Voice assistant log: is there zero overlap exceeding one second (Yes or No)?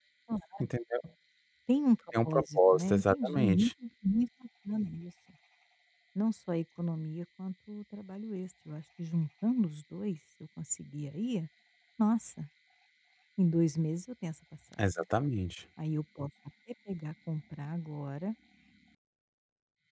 No